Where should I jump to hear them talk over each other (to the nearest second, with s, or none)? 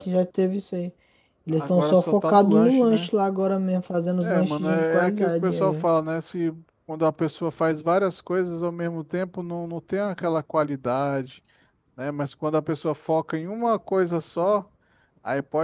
2 s